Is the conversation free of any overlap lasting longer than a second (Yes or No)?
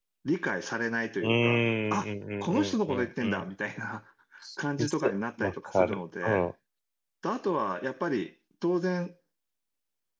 No